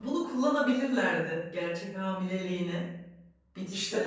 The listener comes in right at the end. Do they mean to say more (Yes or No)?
Yes